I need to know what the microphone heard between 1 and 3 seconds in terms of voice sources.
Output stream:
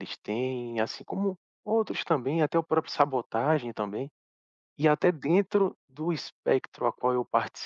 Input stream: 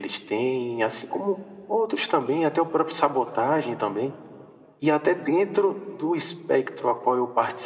echo only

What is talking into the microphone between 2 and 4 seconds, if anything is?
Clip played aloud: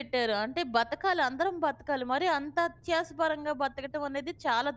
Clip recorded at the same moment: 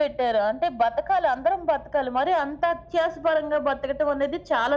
echo only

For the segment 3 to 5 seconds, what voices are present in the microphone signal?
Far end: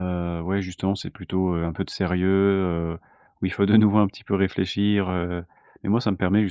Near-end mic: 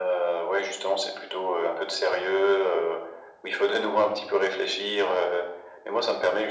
echo only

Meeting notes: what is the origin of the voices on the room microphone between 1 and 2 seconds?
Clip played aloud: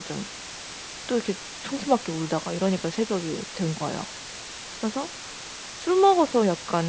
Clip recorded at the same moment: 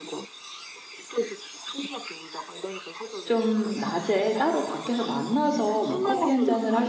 echo only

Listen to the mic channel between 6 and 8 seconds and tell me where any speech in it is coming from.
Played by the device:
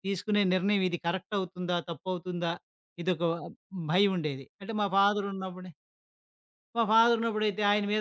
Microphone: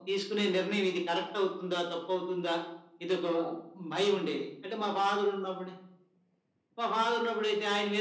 echo only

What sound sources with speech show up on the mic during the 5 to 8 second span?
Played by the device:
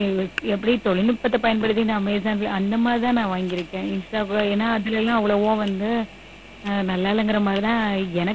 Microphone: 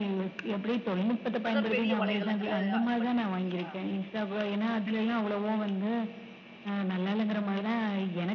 echo only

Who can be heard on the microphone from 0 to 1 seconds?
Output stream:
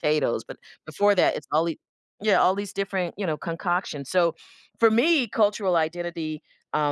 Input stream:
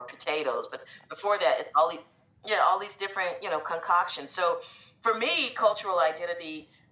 echo only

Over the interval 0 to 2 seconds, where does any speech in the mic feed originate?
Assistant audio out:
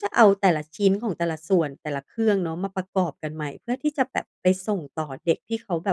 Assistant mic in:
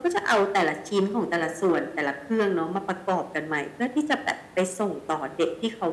echo only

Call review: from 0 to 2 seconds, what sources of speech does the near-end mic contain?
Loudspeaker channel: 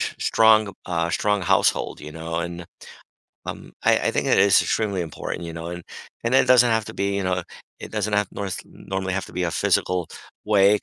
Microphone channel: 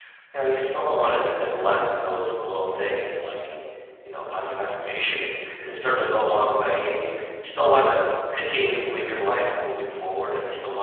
user only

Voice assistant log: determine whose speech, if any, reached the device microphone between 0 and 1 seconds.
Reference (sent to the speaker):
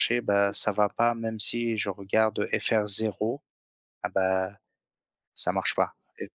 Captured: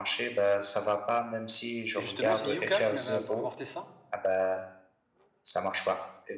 echo only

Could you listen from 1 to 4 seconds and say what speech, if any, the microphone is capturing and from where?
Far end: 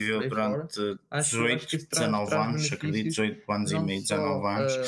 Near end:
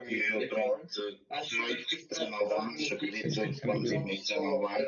both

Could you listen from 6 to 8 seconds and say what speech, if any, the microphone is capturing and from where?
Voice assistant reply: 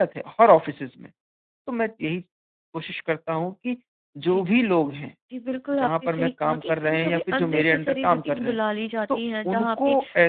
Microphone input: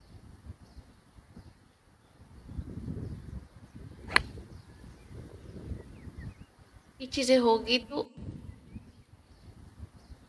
user only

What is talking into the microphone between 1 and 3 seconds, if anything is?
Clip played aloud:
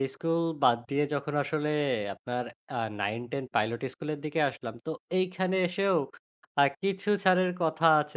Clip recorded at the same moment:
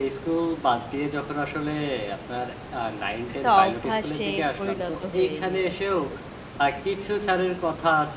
echo only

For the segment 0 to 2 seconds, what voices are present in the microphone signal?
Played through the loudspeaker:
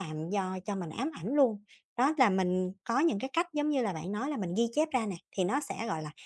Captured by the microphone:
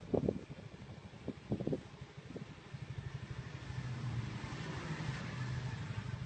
neither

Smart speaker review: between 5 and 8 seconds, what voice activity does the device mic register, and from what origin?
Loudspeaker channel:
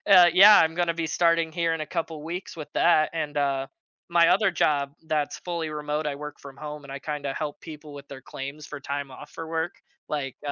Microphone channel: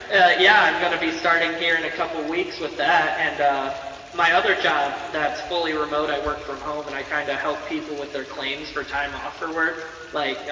echo only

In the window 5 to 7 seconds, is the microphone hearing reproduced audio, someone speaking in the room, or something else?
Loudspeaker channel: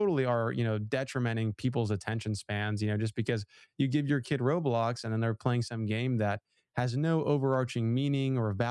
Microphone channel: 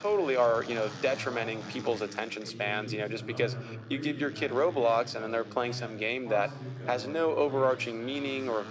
both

